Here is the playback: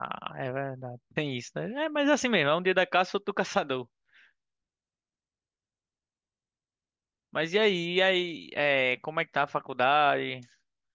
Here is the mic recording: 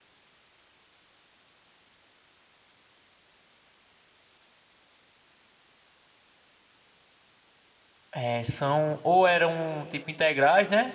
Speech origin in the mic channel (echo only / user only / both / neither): user only